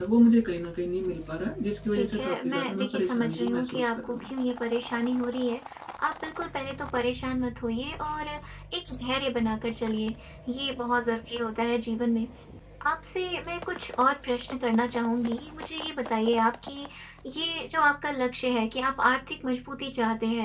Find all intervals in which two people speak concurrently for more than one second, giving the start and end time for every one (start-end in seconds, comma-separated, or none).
1.9-4.3